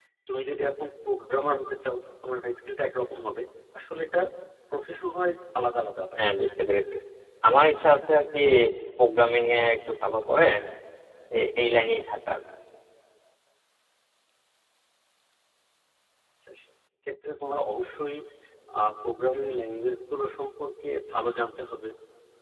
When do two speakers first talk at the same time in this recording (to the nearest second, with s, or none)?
none